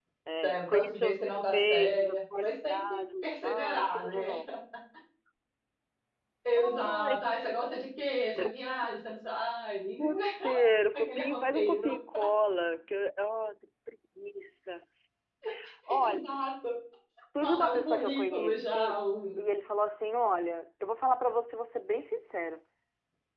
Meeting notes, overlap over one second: present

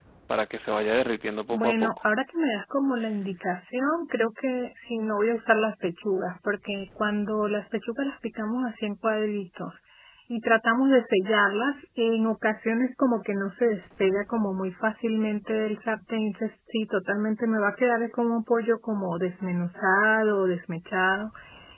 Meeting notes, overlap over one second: none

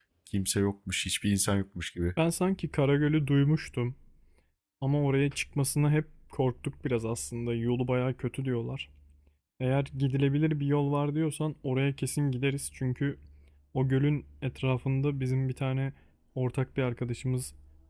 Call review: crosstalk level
none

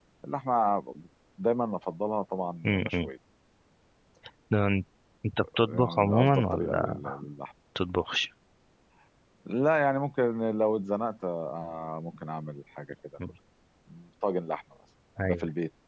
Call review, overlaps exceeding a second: present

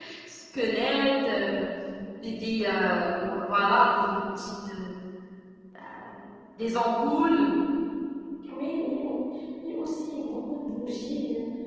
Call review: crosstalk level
none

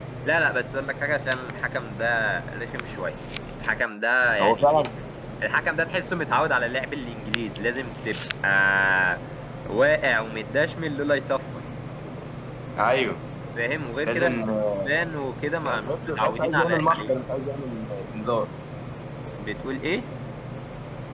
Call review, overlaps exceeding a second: present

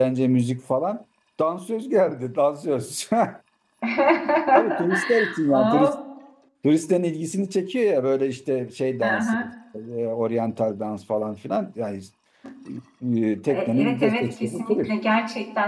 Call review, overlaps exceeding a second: present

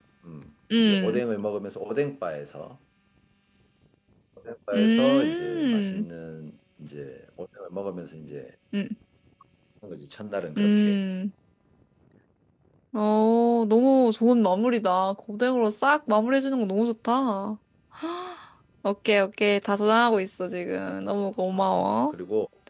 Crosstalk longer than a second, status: present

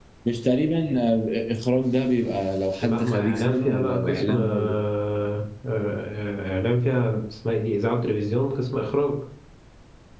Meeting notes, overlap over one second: present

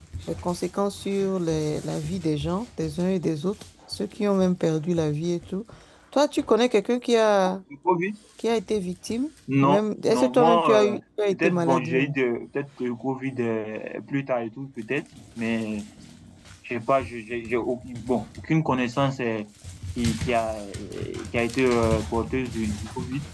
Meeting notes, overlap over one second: present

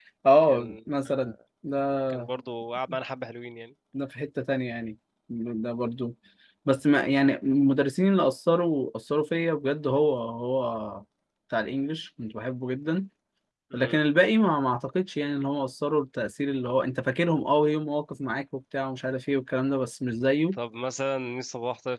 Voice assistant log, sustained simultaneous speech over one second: none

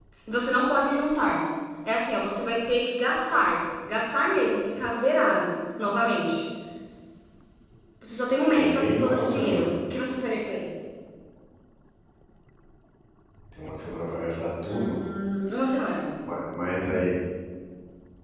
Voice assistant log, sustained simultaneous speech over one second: present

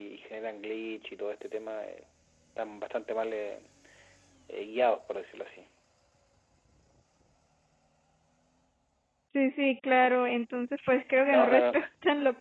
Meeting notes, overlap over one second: none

